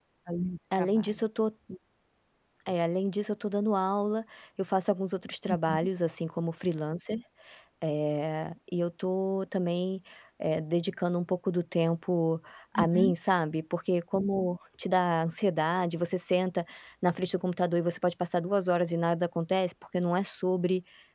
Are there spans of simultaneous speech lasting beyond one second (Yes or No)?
No